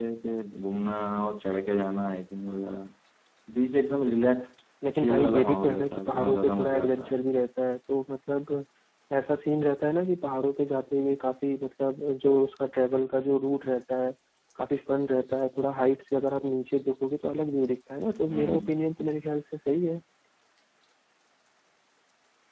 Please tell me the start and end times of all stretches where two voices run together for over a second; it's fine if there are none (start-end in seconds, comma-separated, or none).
5.0-7.2